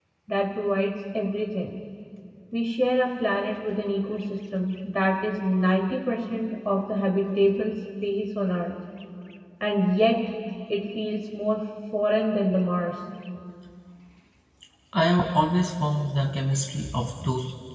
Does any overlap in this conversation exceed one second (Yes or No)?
No